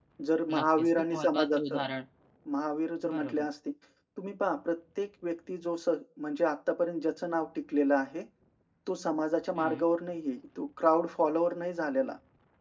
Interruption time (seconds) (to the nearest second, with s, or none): 1 s